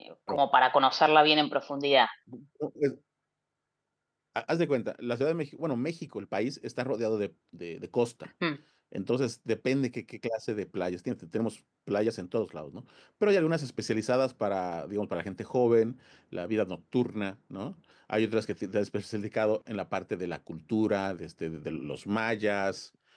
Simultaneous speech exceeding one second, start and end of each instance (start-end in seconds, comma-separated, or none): none